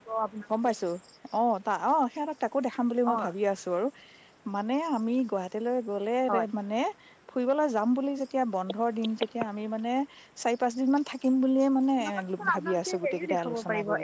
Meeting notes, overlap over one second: present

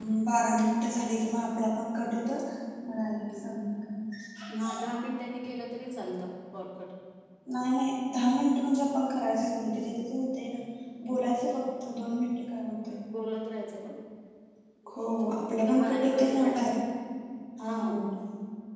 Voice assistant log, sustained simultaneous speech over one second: present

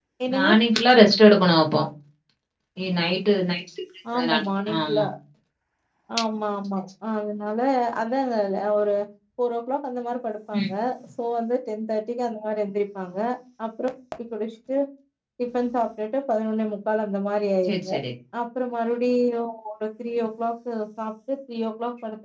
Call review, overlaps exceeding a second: none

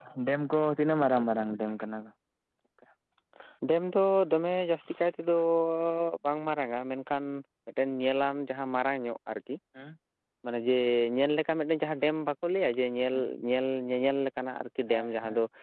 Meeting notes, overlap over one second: none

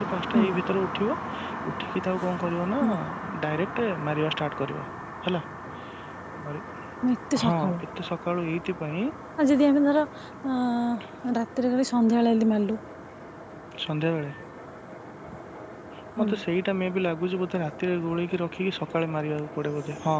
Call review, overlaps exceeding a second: none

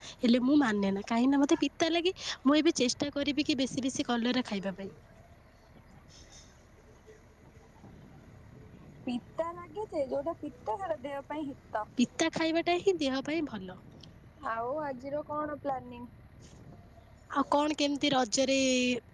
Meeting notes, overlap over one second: none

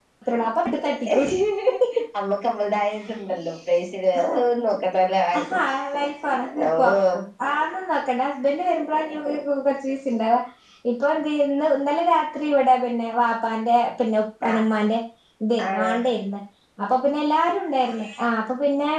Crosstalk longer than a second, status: none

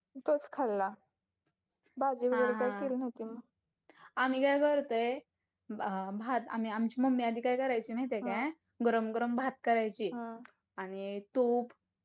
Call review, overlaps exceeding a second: none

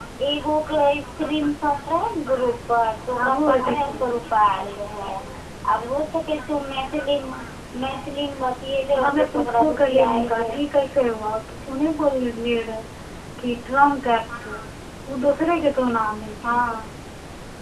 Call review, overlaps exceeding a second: present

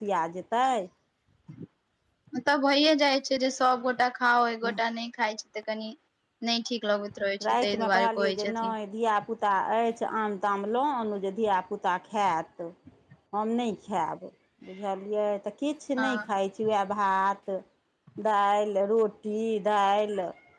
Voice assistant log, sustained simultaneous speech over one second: present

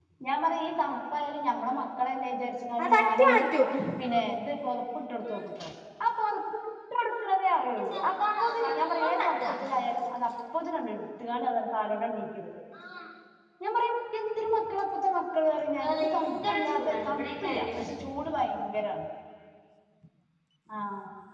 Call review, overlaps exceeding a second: present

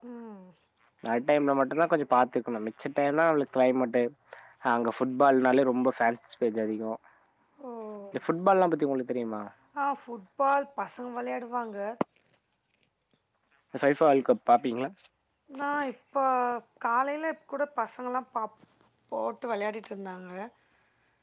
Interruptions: none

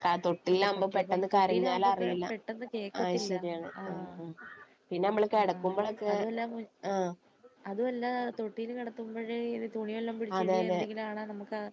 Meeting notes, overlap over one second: present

